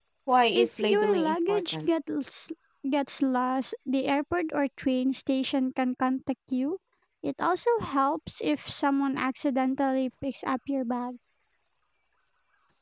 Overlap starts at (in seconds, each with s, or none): 0.5 s